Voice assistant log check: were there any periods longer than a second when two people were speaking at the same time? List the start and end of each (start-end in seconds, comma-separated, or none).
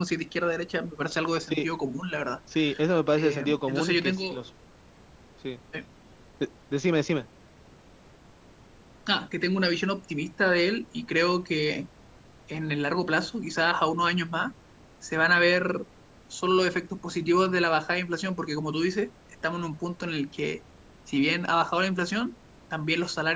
3.2-4.4